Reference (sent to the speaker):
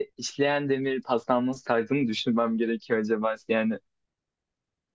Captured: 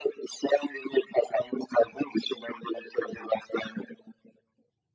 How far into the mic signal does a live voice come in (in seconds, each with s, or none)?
none